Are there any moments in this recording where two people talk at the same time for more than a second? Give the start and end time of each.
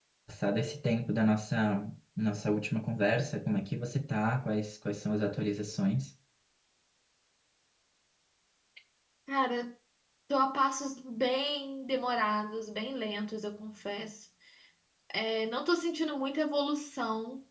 none

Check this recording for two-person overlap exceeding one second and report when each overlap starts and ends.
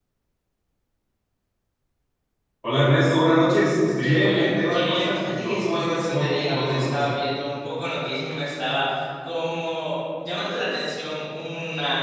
4.0-7.0

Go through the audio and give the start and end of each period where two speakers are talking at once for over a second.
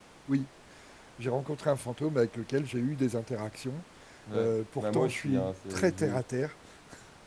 4.3-6.2

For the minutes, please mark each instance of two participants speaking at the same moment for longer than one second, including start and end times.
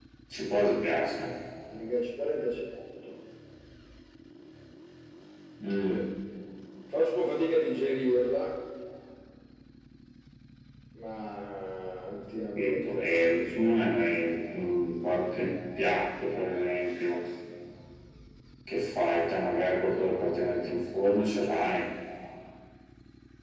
12.6-13.9

